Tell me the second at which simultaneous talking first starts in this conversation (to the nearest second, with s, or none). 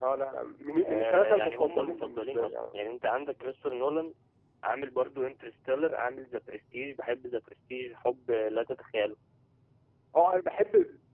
1 s